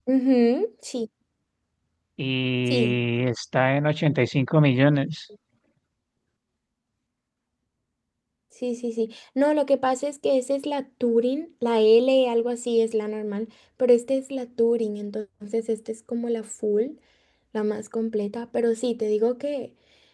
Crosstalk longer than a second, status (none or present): none